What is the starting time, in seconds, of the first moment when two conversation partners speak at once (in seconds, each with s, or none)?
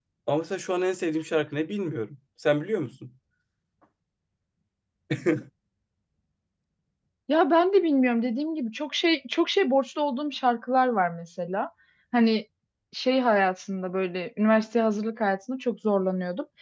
none